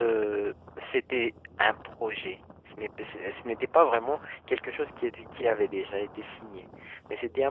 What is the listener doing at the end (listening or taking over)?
listening